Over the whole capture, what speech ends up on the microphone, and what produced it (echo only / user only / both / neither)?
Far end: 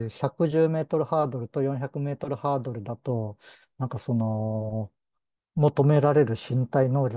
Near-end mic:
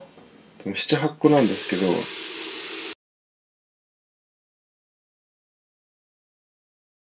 user only